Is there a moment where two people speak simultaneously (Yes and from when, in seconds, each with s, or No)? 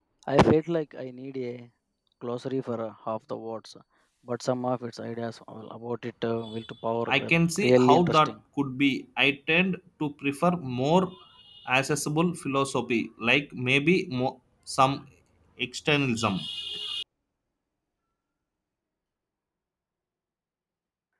Yes, from 7.1 s